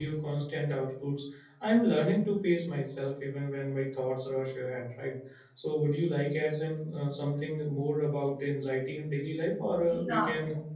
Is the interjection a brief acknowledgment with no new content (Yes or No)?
Yes